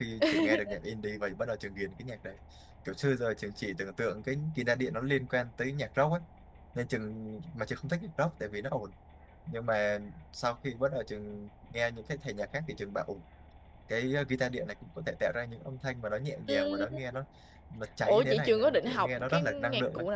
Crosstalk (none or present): present